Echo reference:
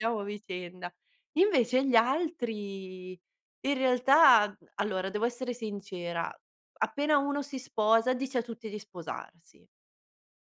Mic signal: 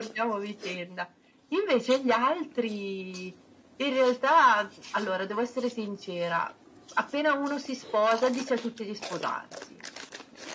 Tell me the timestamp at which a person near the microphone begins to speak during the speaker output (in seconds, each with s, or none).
none